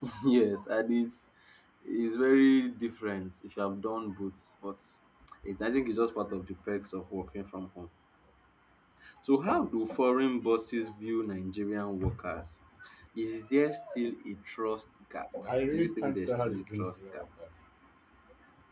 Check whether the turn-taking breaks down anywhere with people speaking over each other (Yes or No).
Yes